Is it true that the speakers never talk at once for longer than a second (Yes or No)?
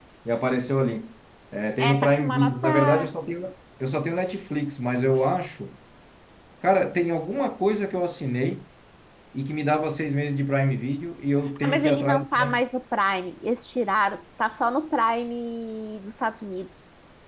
No